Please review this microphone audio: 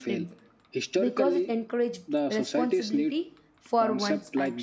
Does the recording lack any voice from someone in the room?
No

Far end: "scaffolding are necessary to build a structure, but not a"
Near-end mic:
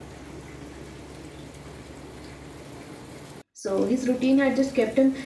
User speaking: Yes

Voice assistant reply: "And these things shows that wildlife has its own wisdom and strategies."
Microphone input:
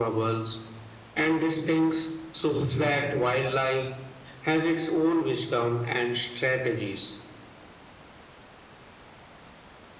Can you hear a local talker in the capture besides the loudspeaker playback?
No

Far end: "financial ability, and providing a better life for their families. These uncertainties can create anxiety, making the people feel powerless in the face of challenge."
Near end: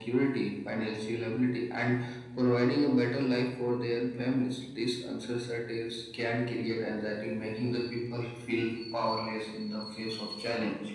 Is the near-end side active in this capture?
No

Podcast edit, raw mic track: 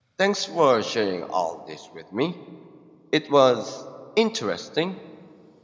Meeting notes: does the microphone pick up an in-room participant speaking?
Yes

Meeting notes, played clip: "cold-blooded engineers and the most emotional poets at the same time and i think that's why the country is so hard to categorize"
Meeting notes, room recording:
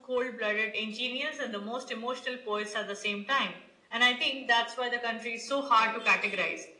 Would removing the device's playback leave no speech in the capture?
Yes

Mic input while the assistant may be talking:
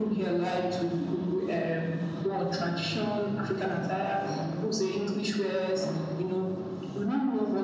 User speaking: No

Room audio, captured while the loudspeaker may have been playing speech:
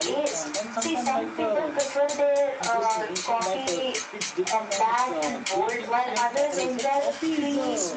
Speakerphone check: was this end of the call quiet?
No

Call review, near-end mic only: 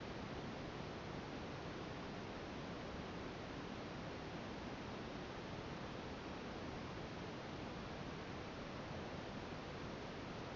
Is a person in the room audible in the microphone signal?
No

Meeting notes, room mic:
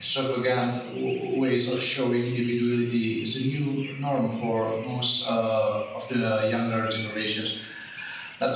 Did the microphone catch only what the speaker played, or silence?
No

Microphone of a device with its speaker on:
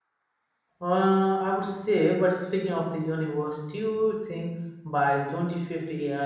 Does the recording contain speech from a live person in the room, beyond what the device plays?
Yes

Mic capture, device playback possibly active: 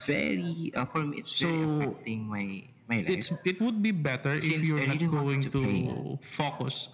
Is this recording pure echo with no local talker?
Yes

